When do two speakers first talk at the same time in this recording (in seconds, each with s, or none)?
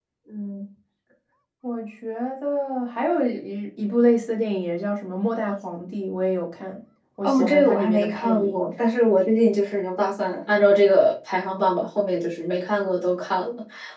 7.2 s